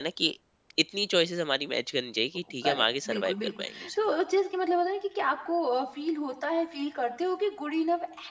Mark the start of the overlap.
2.6 s

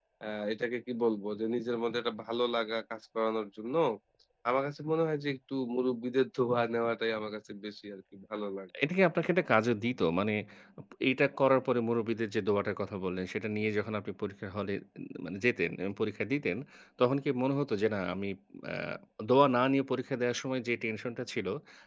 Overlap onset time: none

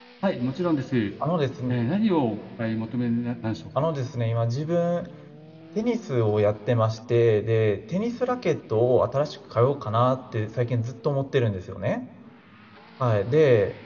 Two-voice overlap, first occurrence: none

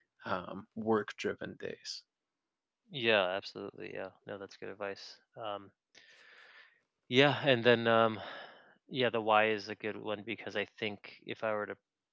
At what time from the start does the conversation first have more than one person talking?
none

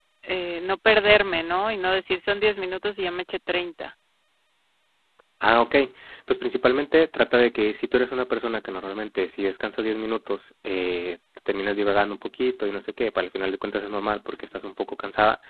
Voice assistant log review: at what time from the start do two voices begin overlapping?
none

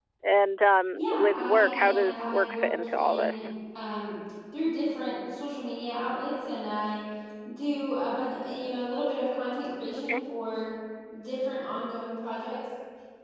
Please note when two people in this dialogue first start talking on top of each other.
0.9 s

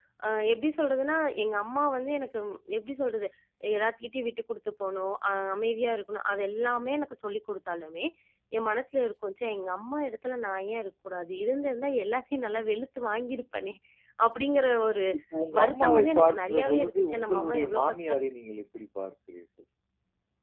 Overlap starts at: 15.6 s

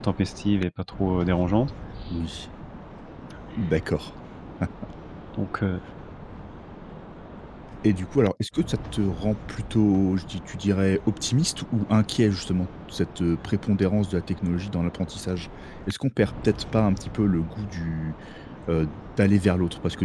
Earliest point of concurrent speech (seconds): none

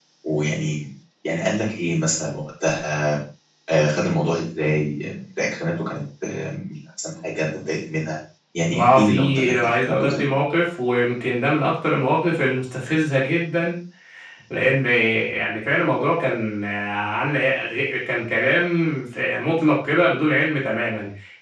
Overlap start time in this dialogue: 8.7 s

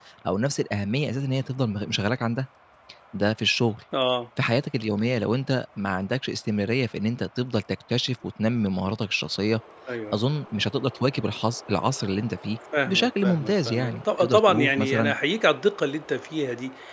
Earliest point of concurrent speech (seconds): 12.7 s

